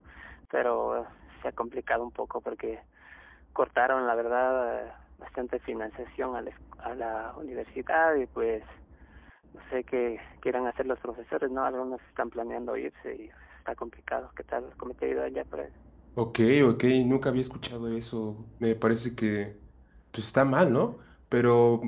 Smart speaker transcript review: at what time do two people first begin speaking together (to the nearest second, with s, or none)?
none